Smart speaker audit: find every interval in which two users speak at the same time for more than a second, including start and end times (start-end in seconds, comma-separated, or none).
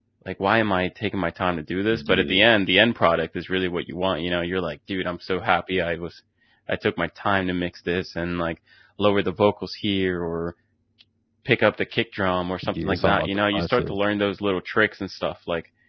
12.7-14.0